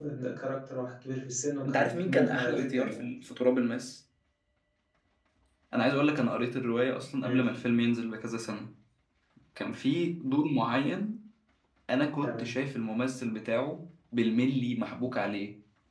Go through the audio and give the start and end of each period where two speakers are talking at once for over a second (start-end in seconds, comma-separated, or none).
1.6-3.1